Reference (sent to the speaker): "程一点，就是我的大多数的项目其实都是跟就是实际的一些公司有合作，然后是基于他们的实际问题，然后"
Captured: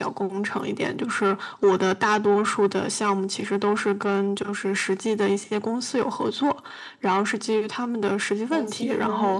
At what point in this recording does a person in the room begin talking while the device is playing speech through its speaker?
8.5 s

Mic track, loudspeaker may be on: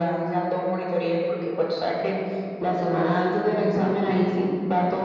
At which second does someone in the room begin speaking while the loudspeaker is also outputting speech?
none

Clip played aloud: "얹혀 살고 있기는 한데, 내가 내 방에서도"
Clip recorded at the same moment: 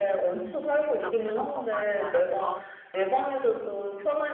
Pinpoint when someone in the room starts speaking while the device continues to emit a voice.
0.8 s

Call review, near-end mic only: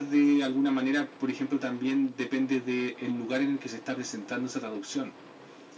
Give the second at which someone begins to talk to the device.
none

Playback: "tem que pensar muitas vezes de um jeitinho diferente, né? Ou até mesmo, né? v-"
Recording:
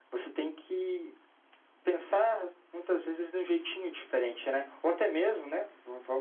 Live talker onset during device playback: none

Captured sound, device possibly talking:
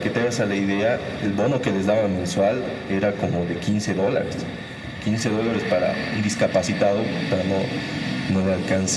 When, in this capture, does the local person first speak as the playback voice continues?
none

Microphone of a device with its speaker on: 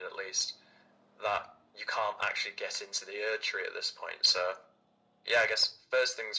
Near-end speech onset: none

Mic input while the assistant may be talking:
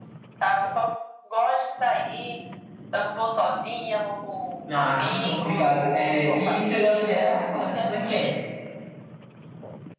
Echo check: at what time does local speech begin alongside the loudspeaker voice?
4.7 s

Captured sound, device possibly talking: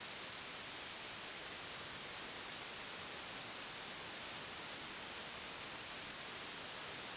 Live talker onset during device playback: none

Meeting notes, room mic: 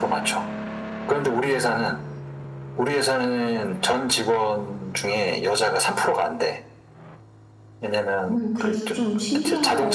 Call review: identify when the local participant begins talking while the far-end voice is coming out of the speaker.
8.3 s

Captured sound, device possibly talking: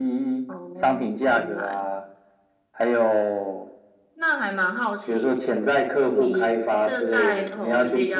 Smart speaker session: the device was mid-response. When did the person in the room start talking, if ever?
none

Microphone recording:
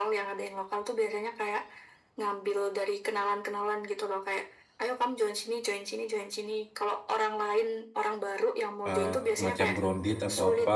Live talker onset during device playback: 8.8 s

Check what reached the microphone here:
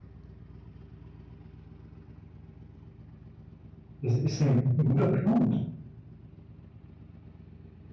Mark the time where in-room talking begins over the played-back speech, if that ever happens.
4.0 s

